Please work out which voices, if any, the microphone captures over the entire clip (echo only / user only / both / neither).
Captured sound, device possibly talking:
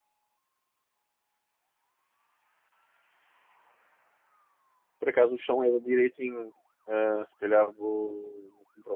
user only